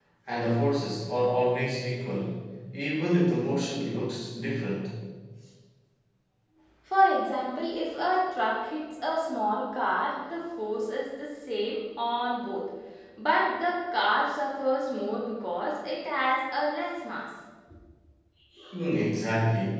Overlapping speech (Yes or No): No